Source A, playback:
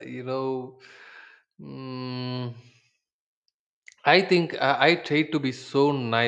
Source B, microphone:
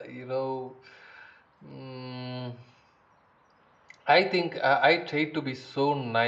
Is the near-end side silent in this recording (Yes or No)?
Yes